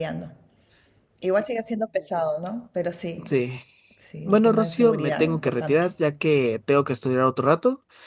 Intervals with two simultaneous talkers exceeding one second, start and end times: 4.2-5.8

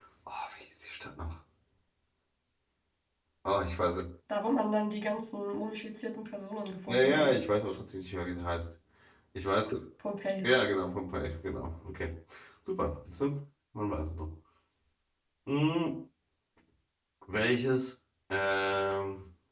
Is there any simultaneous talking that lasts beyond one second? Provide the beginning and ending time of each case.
none

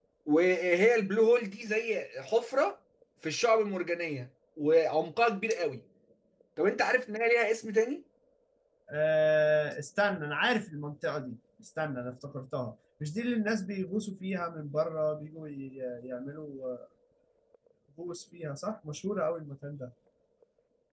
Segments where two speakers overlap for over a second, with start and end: none

